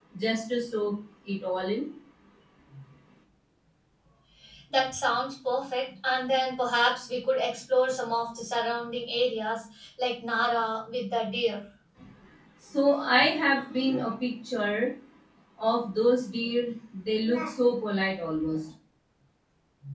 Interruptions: none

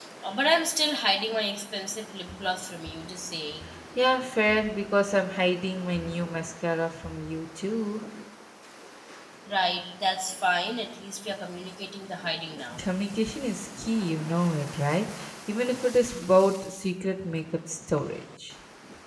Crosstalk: none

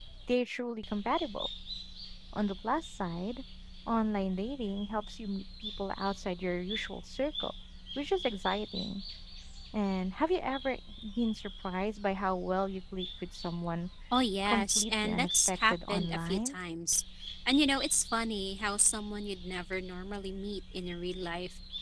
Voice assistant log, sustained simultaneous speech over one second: present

